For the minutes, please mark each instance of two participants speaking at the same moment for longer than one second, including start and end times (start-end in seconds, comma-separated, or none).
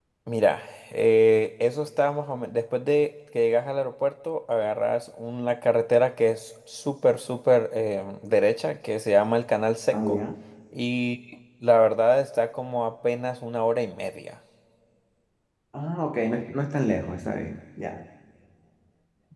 none